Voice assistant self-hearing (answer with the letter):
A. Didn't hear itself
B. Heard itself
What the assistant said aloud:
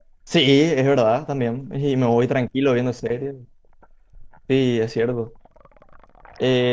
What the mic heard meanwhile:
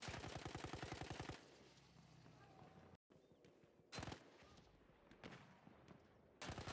A